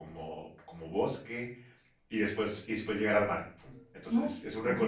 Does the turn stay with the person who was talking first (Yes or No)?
Yes